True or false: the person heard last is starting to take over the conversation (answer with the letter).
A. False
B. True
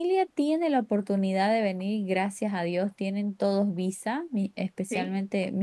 A